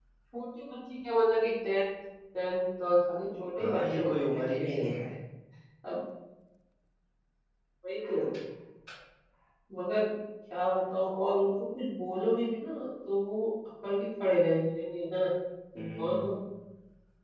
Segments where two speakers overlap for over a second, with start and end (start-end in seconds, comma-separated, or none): 3.6-4.8